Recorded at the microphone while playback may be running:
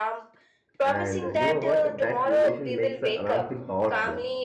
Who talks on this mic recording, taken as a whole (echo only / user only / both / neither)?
both